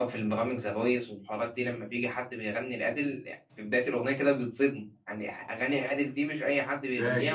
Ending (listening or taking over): taking over